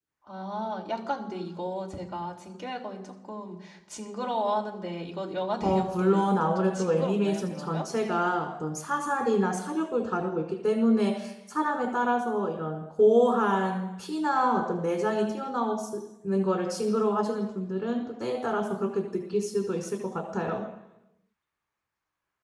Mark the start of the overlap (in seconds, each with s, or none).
5.6 s